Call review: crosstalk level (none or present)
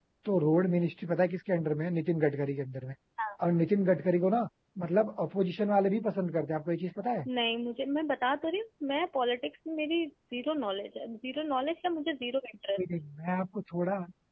none